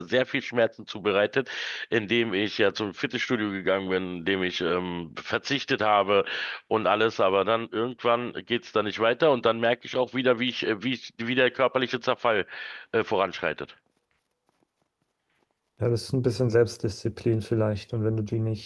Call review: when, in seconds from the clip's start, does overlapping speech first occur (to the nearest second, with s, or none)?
none